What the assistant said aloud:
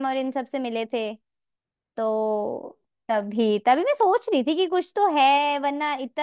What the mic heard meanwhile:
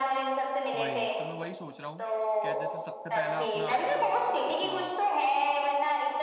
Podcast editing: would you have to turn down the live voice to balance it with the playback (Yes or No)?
No